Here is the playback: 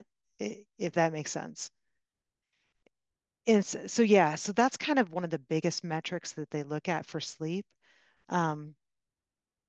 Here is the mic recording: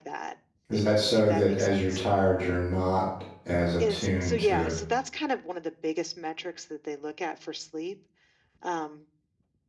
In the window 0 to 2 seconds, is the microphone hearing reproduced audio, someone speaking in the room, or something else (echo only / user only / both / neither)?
both